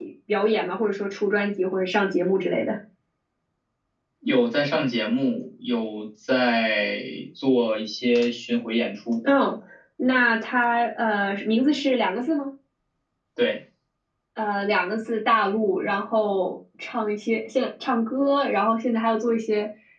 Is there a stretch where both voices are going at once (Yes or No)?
No